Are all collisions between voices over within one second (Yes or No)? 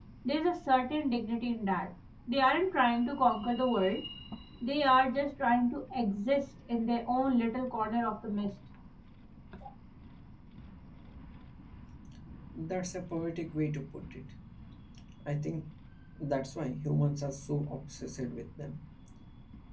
Yes